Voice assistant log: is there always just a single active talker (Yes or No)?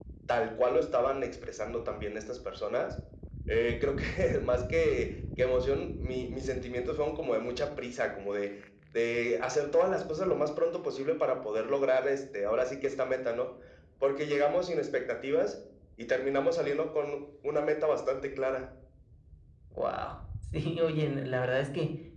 Yes